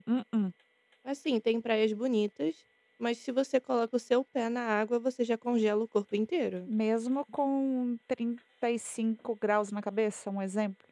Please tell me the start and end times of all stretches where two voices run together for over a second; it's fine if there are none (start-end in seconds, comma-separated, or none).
none